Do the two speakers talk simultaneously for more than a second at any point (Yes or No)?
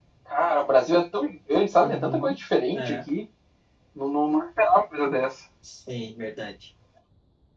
No